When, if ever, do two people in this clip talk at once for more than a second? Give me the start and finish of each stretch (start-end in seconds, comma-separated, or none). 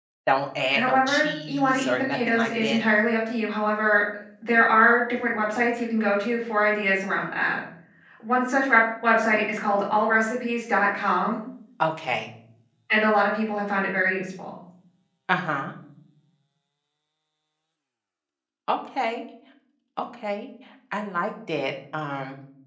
0.7-2.8